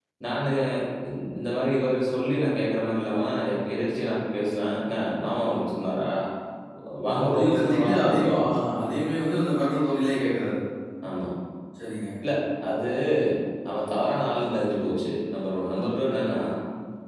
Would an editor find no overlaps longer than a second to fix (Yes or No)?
No